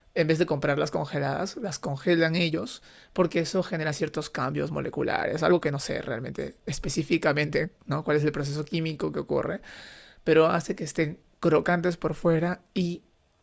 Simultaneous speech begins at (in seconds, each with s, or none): none